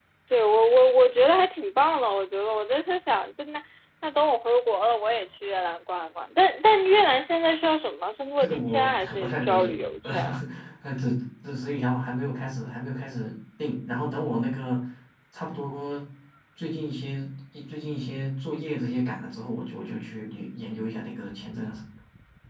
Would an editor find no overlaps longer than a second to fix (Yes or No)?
No